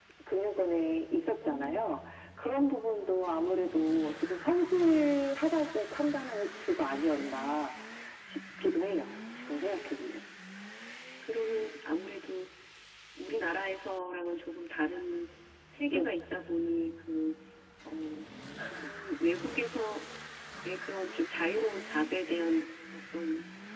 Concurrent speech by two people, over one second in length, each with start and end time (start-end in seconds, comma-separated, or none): none